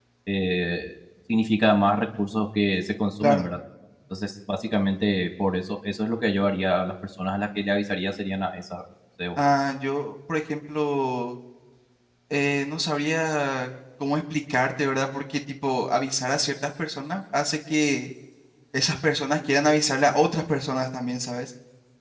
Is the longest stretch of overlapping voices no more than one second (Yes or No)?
Yes